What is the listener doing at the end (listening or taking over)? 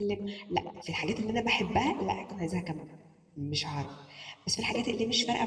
listening